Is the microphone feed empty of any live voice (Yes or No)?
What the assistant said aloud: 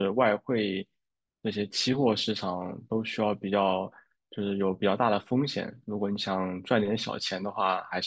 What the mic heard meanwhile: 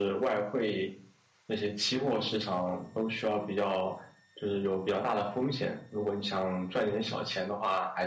Yes